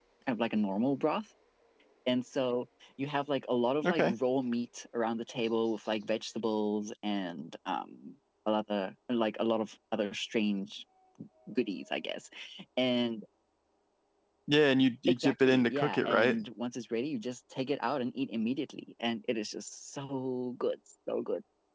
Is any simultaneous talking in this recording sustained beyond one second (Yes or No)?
Yes